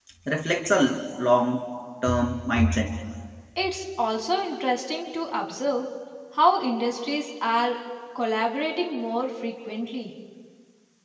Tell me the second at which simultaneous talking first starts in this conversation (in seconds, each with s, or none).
none